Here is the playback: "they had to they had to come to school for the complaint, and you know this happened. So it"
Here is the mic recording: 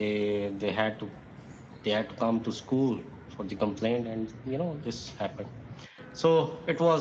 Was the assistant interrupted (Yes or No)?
No